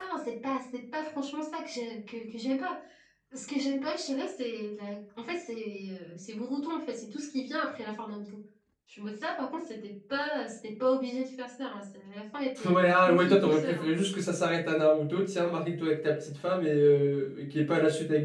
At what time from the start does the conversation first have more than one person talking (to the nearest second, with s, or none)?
13 s